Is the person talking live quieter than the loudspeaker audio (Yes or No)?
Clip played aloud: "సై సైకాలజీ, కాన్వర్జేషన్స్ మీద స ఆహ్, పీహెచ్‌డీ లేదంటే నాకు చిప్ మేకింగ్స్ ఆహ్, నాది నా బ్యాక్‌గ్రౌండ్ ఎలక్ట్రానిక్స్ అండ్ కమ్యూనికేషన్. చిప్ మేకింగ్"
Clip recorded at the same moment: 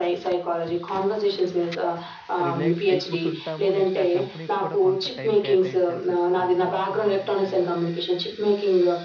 Yes